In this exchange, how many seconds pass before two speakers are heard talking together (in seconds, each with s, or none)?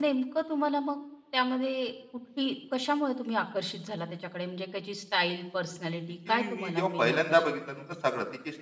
6.3 s